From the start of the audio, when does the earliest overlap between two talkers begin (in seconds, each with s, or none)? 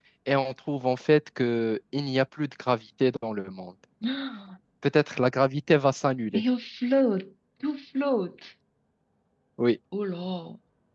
none